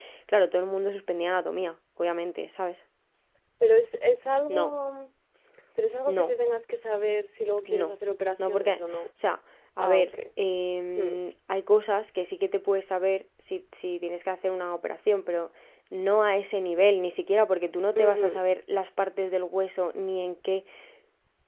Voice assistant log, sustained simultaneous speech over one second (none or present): none